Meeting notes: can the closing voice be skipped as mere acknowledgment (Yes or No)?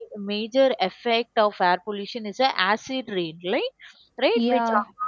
Yes